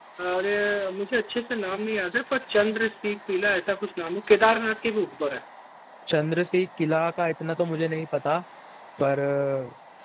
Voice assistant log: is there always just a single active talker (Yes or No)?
Yes